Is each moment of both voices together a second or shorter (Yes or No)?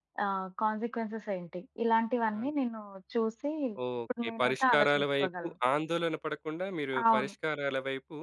No